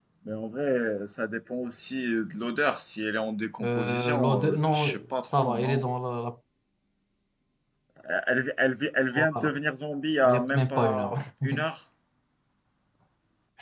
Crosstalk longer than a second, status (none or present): present